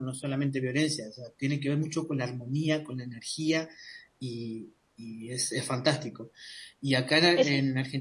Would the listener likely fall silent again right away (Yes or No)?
Yes